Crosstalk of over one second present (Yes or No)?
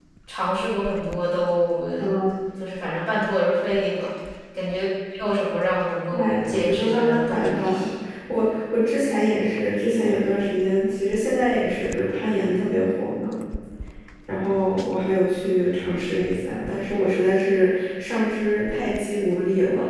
Yes